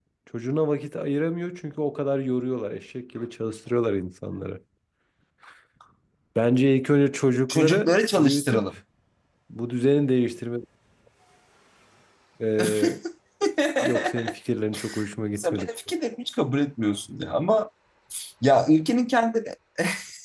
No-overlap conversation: No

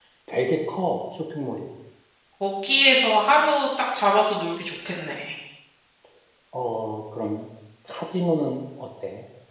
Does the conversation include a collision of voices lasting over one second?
No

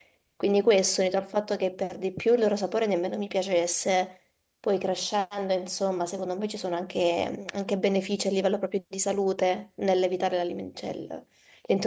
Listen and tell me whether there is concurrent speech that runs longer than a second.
No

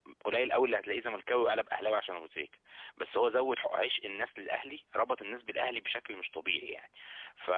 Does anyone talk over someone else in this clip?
No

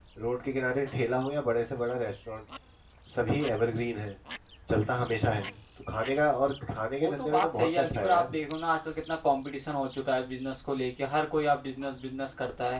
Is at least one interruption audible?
Yes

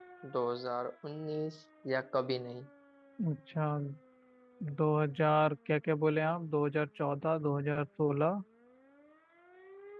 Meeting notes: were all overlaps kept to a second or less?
Yes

